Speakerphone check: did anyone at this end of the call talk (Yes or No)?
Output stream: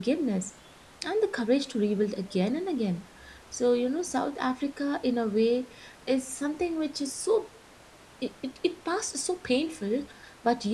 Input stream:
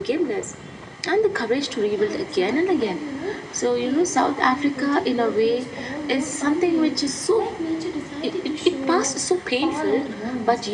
Yes